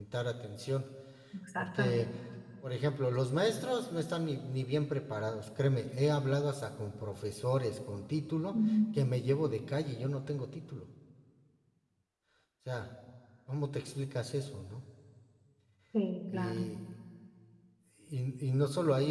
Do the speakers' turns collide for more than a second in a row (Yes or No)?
No